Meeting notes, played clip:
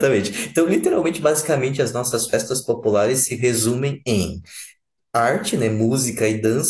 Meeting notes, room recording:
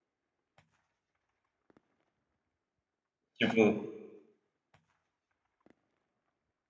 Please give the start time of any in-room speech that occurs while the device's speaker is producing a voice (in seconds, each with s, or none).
3.4 s